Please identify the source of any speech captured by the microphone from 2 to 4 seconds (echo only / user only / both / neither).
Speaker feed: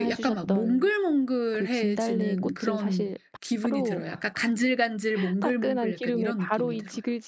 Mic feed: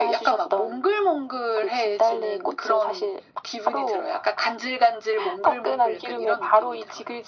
echo only